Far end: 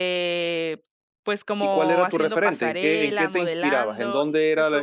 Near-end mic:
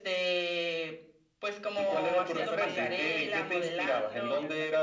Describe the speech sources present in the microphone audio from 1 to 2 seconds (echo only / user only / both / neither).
echo only